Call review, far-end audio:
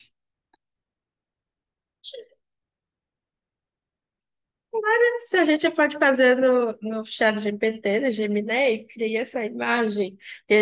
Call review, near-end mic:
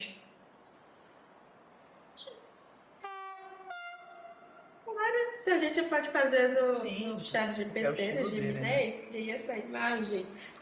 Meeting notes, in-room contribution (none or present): present